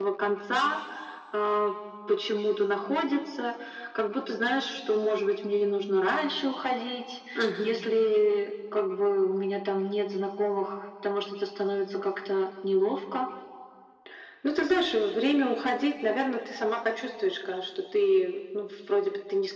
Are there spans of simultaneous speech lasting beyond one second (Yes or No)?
No